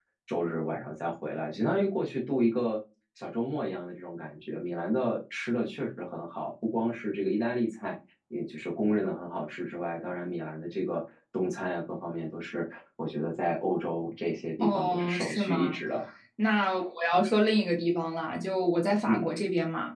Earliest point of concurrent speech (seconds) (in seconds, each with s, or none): 14.6 s